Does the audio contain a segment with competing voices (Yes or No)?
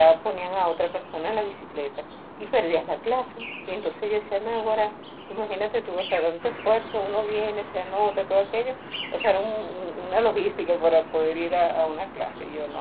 No